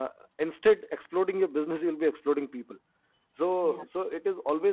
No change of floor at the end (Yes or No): Yes